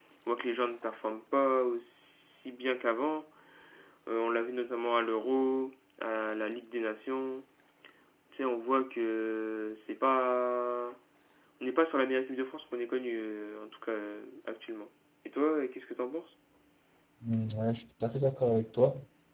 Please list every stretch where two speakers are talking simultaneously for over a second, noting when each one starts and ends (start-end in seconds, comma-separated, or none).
none